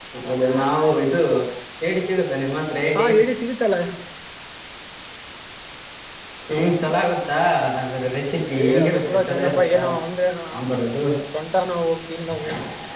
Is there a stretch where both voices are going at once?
Yes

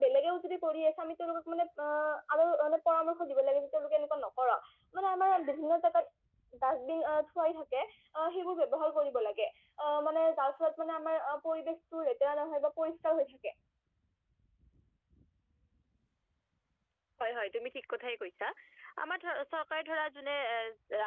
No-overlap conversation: Yes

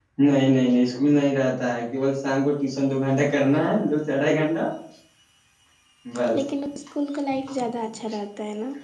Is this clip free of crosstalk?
Yes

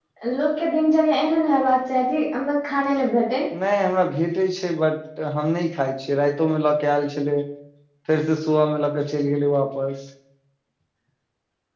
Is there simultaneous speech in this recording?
No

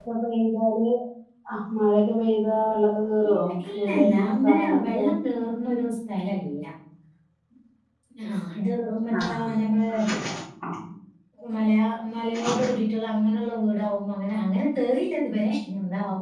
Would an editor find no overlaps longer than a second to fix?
No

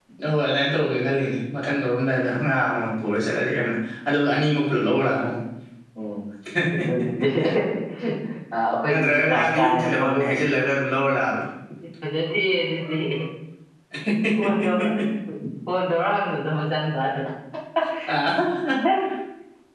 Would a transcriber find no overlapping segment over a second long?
No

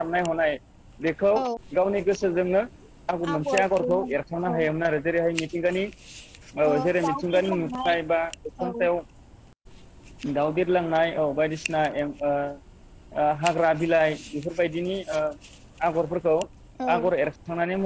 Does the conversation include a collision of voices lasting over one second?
Yes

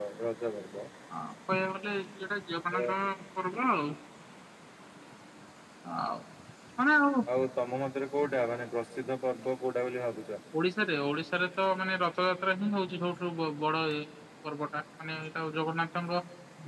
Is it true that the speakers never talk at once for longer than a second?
Yes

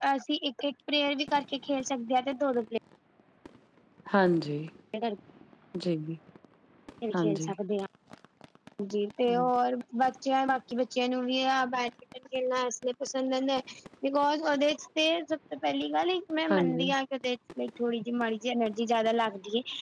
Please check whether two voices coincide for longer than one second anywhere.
No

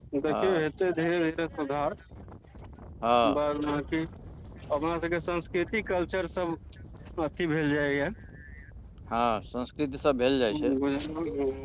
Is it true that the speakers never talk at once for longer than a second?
Yes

